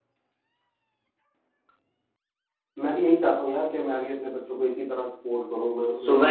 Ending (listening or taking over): taking over